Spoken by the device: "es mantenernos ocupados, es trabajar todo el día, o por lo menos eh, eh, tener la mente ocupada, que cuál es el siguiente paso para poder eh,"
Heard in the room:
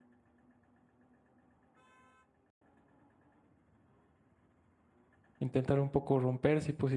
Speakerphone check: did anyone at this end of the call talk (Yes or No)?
Yes